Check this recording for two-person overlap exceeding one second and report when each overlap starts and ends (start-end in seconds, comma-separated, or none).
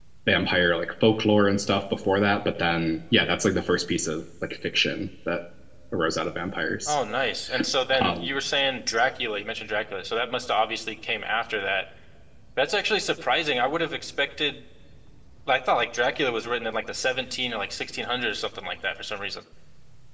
none